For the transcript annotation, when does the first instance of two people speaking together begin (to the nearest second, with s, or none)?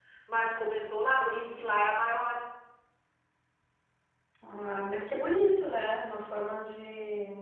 none